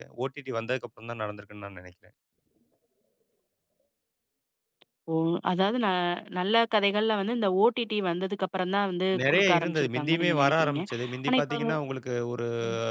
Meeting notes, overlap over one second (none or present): present